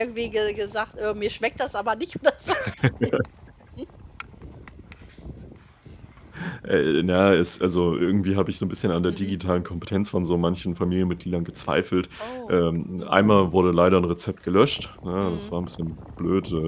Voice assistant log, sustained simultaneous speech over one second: none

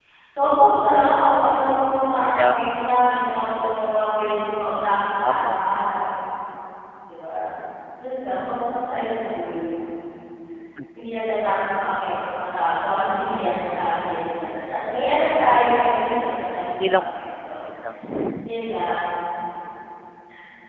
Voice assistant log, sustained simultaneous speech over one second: none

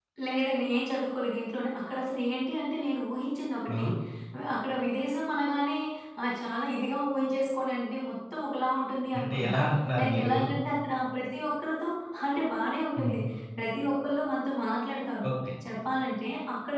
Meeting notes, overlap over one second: none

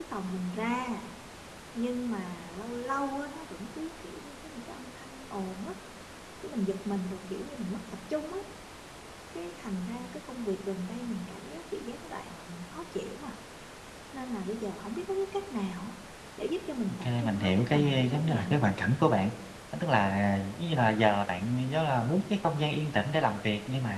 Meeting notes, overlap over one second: present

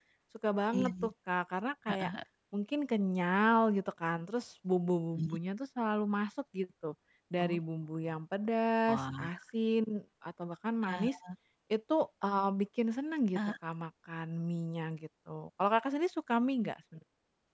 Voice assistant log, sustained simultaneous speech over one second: none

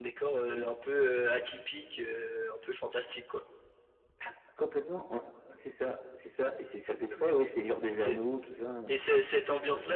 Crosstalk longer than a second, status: none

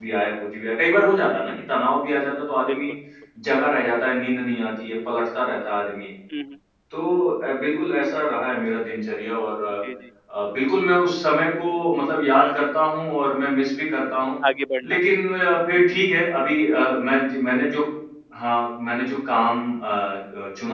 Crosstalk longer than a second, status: none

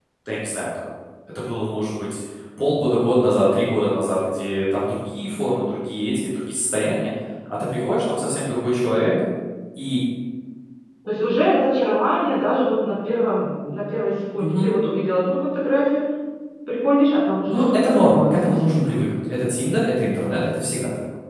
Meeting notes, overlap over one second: present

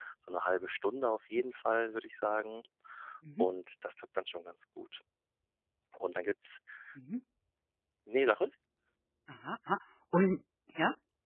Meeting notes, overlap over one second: none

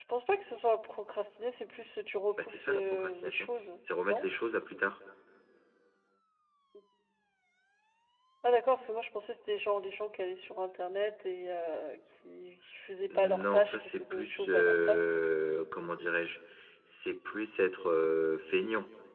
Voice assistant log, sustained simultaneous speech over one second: present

